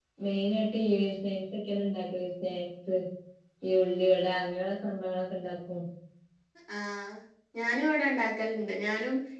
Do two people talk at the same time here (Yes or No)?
No